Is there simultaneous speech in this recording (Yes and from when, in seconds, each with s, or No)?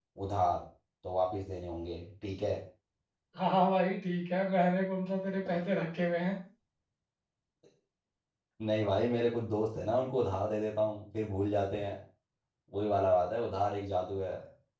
No